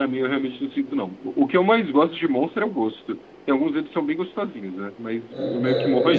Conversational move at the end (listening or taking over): taking over